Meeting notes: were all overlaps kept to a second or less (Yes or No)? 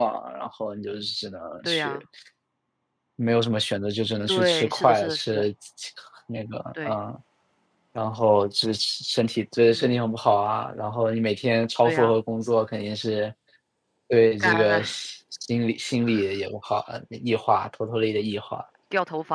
No